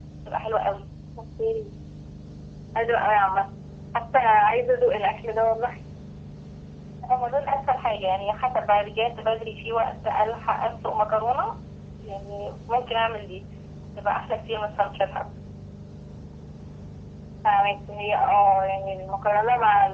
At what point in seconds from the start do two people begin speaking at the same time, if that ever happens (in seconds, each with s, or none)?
none